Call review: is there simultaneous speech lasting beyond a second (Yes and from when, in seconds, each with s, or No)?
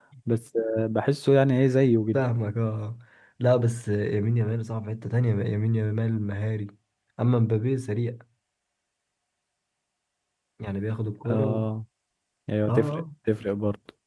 No